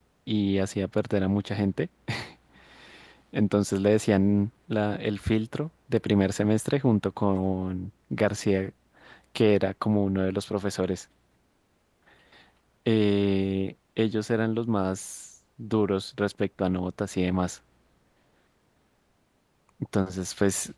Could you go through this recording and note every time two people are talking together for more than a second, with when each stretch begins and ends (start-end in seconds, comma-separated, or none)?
none